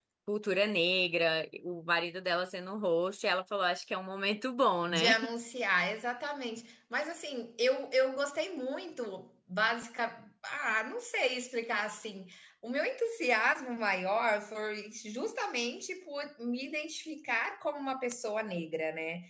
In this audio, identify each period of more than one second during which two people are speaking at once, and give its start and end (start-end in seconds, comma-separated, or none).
none